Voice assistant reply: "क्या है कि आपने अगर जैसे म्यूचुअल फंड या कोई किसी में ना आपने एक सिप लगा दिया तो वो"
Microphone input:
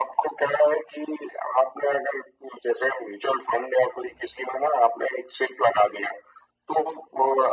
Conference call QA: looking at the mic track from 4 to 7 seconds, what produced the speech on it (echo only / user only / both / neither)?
echo only